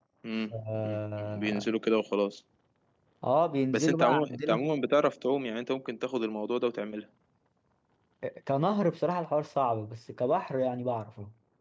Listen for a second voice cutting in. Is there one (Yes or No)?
Yes